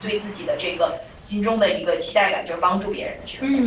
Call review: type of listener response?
taking over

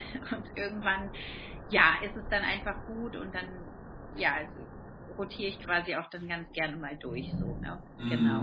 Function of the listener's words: taking over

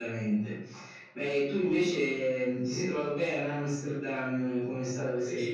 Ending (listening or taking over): taking over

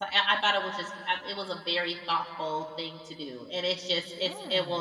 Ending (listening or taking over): listening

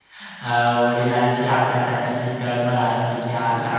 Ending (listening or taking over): listening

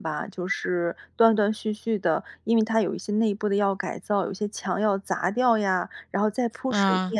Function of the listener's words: listening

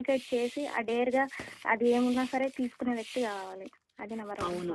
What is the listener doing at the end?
taking over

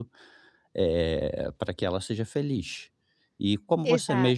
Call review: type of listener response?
listening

